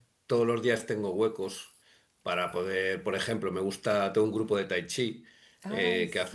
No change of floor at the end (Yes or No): Yes